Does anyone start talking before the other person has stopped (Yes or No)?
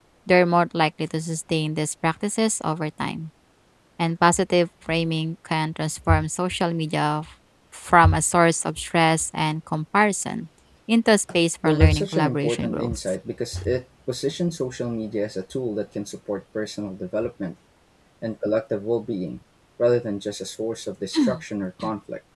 Yes